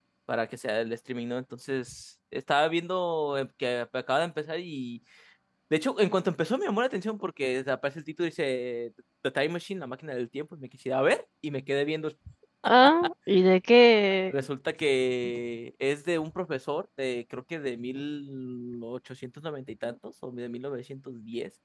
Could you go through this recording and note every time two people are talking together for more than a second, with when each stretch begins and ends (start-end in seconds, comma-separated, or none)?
none